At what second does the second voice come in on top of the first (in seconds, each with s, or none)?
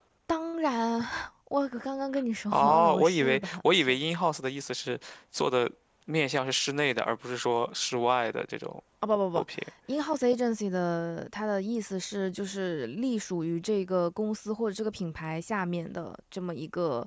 2.5 s